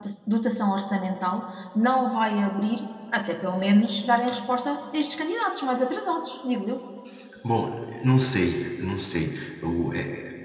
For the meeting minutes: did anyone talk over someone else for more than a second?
No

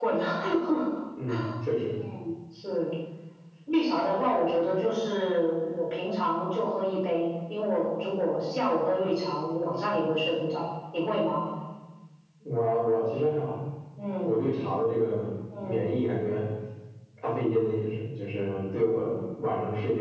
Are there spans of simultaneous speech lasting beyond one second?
No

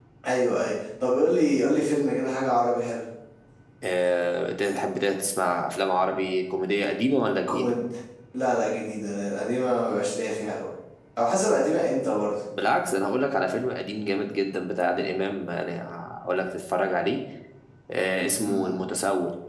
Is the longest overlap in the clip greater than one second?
No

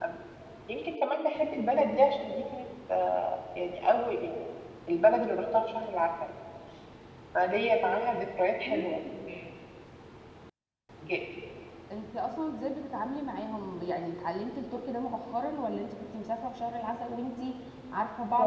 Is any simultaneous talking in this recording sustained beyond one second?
No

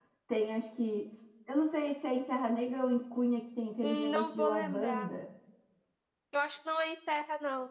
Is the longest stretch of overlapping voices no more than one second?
No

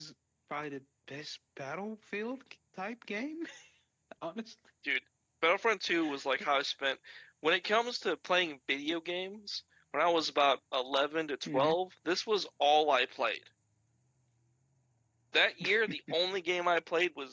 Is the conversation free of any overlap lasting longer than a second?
Yes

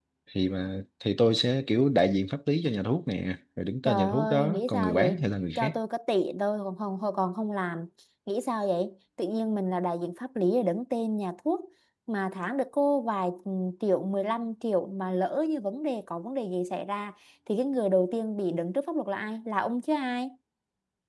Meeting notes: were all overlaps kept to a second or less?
No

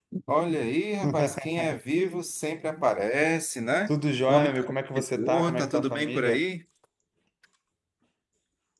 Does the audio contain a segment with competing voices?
Yes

